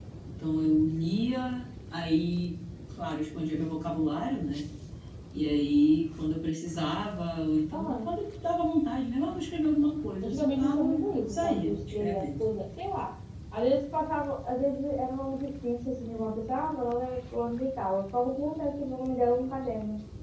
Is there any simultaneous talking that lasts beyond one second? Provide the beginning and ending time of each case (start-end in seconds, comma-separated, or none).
10.2-12.4